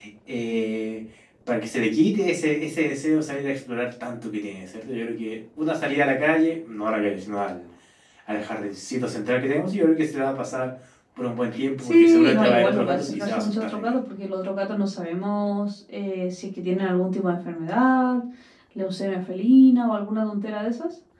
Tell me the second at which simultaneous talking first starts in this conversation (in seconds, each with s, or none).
11.8 s